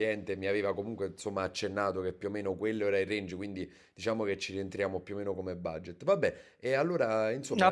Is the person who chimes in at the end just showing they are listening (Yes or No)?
No